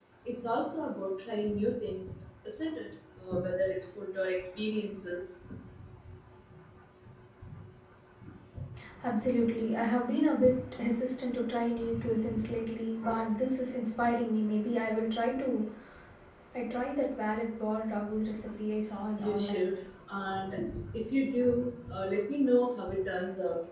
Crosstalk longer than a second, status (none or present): none